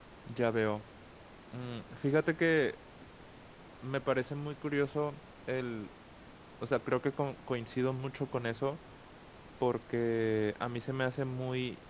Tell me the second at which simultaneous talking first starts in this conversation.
none

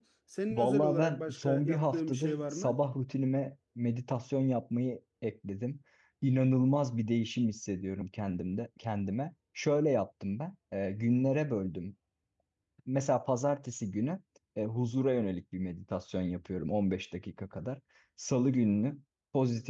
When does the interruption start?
1 s

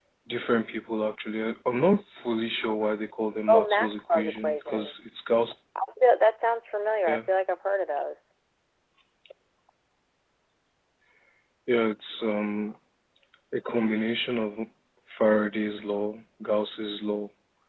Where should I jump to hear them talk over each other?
3 s

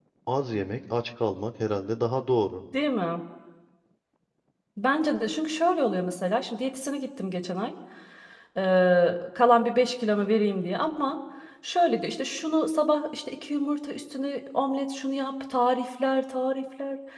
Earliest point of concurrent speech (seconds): none

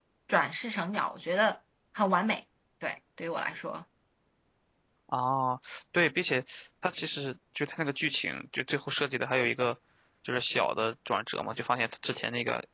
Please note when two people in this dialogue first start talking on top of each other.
none

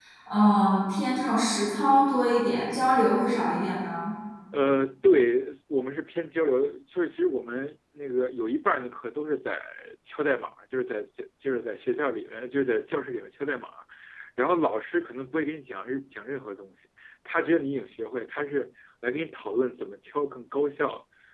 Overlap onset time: none

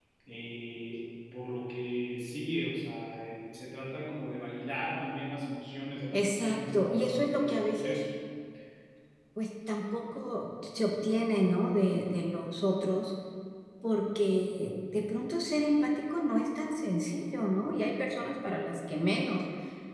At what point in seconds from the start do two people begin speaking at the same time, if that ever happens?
6 s

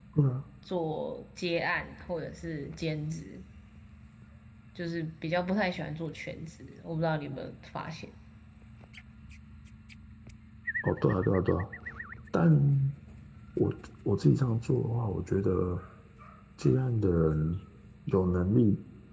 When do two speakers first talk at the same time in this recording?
none

